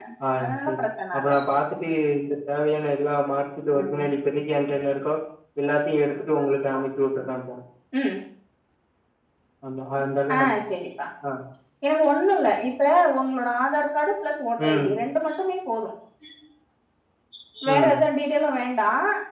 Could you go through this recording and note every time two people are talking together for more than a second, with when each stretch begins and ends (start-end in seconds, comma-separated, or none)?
none